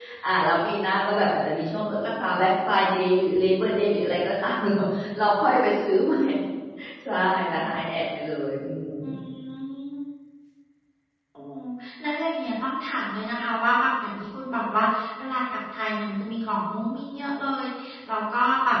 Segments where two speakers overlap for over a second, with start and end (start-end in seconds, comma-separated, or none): none